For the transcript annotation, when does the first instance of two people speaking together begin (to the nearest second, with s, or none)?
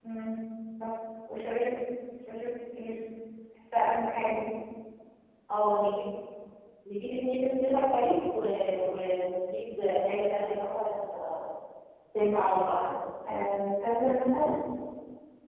none